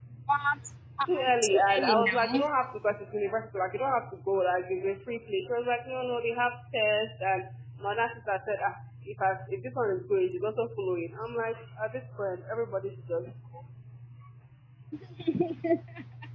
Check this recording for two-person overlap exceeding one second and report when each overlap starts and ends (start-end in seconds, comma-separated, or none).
1.0-2.4